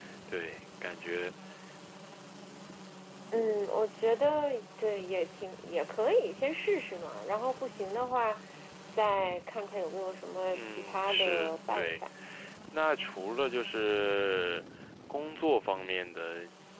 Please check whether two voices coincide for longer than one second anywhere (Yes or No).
Yes